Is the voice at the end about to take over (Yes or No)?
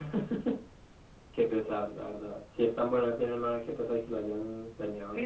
Yes